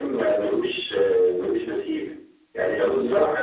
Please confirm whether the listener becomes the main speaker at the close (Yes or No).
No